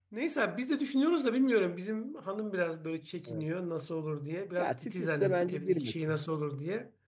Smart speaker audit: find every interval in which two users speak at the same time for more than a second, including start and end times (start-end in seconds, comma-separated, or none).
4.6-6.2